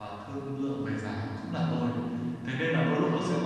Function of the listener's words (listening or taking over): listening